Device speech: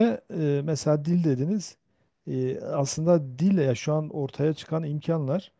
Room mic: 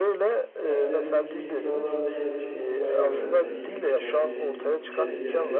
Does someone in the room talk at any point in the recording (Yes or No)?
Yes